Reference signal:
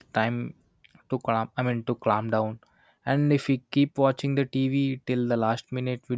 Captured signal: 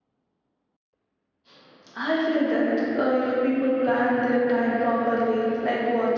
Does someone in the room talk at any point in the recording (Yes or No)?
Yes